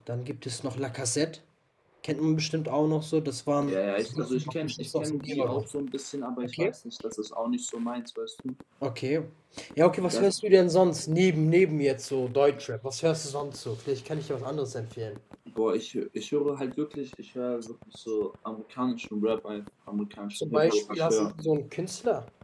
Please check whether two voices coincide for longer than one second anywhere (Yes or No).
Yes